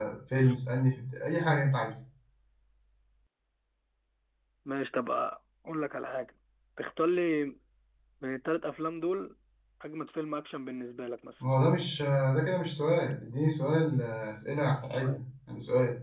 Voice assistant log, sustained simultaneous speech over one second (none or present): none